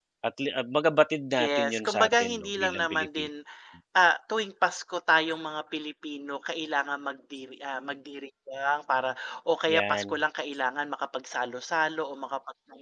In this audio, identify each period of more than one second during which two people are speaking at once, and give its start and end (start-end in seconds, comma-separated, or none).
1.4-3.3